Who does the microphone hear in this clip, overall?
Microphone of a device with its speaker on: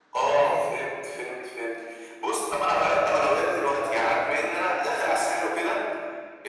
echo only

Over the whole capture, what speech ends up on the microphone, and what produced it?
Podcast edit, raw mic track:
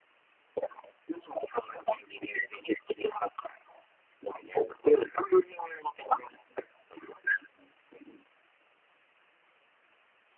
echo only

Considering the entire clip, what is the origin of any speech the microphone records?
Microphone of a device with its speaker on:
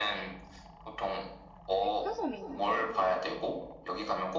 both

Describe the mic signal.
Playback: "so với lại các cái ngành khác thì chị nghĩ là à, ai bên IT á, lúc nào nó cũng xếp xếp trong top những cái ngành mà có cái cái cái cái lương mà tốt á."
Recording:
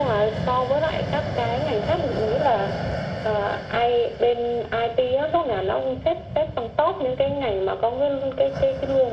echo only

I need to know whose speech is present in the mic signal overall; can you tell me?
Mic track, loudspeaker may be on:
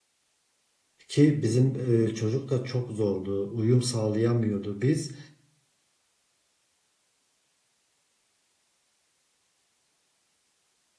user only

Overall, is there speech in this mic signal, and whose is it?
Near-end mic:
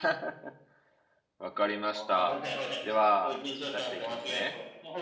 both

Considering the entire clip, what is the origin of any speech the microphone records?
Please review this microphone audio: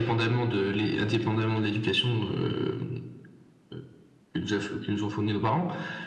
echo only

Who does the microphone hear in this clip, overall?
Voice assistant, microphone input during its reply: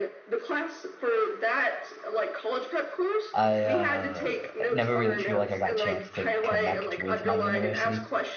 both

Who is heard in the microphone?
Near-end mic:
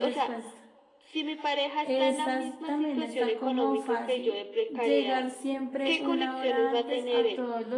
both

